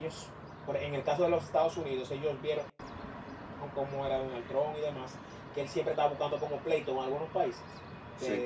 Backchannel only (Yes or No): Yes